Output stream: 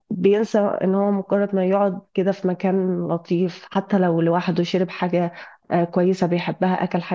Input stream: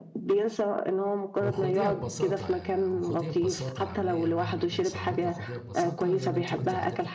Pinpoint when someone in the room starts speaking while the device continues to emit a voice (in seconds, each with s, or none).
1.4 s